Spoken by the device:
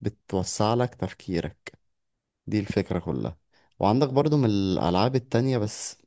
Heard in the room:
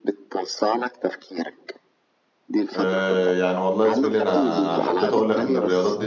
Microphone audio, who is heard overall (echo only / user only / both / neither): both